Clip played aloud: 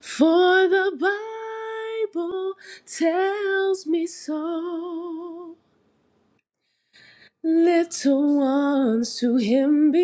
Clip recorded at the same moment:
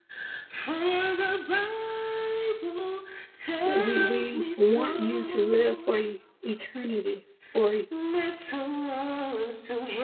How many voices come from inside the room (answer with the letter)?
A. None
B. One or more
B